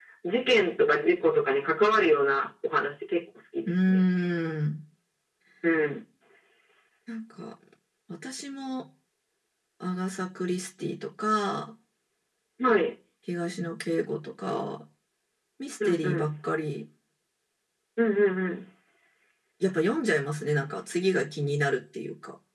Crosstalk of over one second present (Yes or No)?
No